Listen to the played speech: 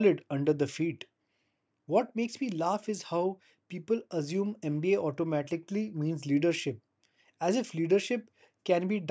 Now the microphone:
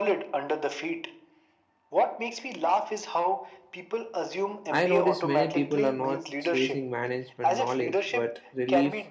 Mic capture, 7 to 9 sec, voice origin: both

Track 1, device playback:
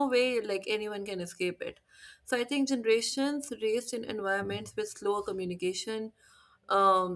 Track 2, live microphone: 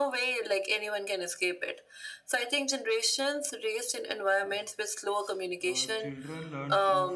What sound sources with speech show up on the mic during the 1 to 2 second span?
echo only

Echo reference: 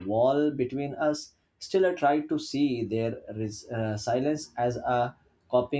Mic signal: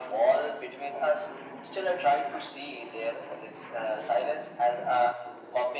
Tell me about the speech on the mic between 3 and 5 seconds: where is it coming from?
echo only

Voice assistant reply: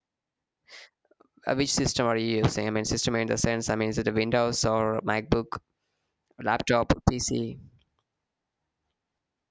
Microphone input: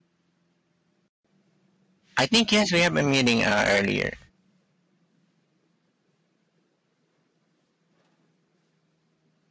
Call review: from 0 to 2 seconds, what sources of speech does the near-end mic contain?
neither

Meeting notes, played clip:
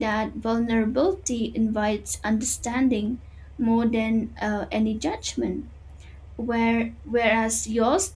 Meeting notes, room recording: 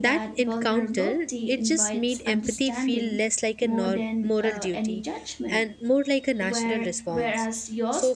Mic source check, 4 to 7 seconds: both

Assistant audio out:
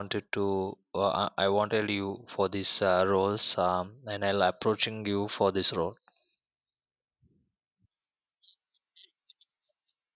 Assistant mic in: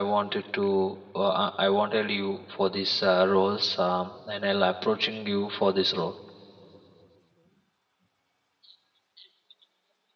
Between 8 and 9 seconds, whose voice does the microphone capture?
neither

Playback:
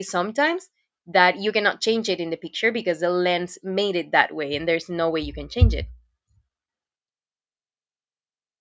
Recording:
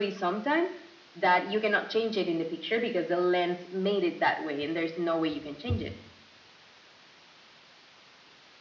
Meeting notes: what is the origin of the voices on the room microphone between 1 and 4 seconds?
echo only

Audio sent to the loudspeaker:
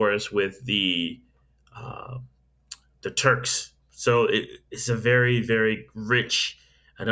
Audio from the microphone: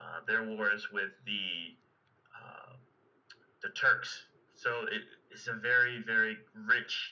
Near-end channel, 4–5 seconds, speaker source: echo only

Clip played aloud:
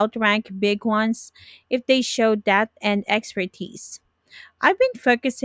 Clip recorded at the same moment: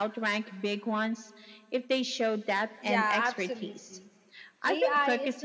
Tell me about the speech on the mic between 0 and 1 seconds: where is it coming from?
echo only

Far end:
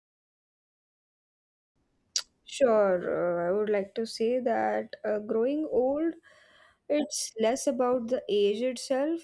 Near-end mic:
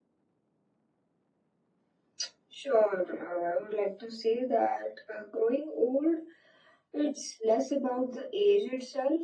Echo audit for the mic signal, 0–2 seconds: neither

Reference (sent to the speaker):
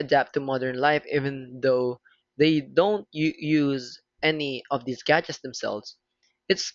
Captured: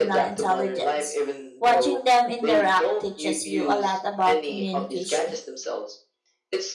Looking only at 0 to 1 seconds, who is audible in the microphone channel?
both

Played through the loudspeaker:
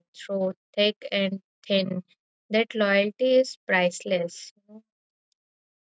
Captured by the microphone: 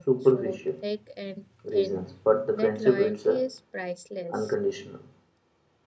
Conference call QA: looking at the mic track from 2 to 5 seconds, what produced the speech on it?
both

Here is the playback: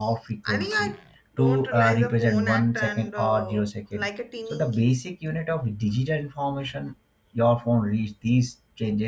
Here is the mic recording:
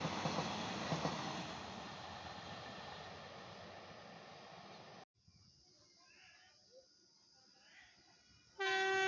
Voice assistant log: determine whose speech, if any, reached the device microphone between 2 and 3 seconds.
neither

